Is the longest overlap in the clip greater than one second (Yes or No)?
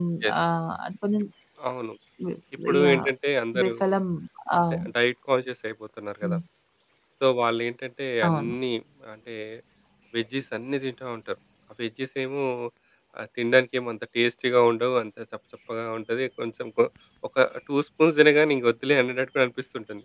No